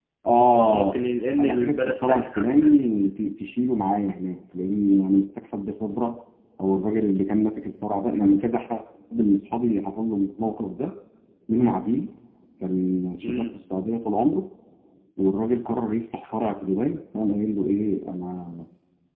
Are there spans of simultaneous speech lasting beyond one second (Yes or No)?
Yes